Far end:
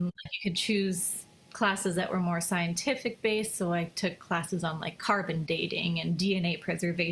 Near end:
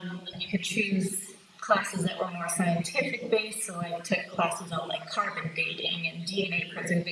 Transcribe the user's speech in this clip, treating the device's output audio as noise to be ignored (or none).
none